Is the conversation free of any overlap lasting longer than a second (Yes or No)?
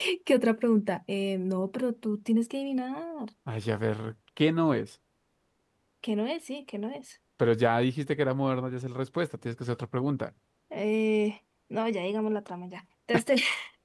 Yes